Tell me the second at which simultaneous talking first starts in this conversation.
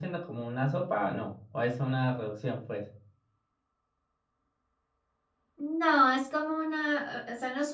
none

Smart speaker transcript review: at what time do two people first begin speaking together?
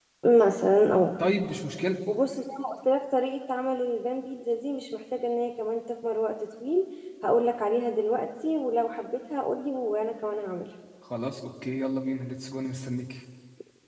none

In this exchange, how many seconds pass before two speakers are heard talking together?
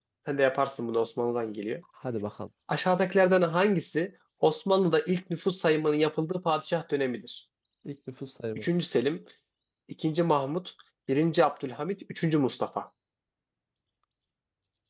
none

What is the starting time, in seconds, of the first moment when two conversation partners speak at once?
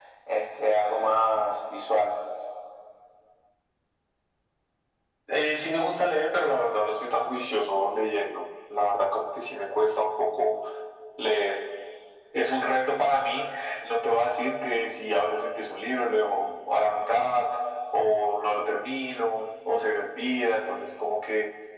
none

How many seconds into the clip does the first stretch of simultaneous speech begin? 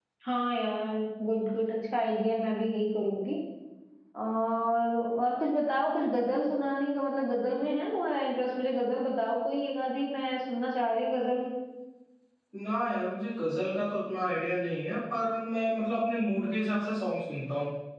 none

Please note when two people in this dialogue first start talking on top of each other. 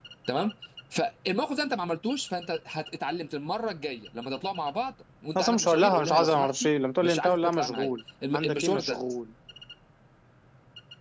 5.4 s

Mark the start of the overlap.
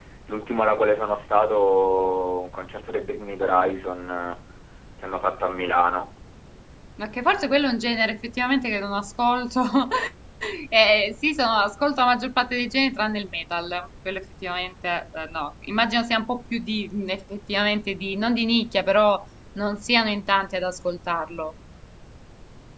none

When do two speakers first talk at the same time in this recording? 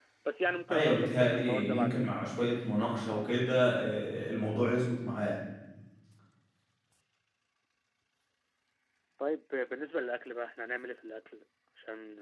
0.7 s

